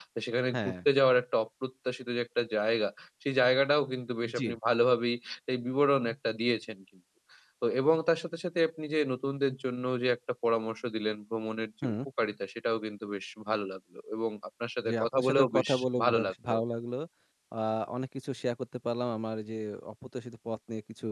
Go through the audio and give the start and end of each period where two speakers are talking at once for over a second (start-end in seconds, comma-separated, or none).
14.9-16.6